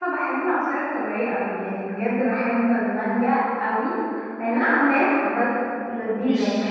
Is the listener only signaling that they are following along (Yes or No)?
No